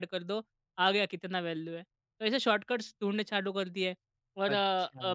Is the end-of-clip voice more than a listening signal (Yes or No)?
Yes